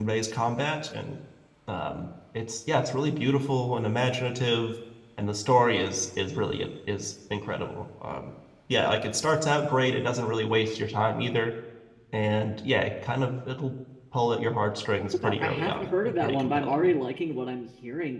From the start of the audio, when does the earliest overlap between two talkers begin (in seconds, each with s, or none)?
15.0 s